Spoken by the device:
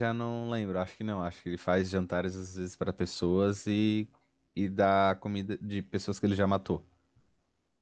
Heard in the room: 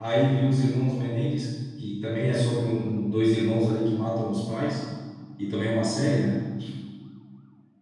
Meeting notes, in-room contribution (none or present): present